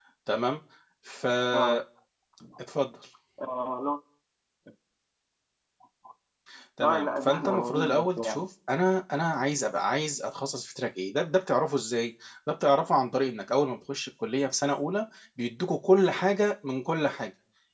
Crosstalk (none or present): present